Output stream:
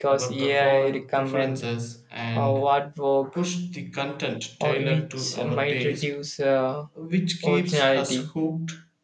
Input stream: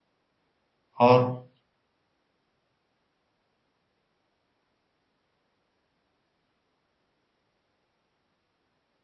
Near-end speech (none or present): present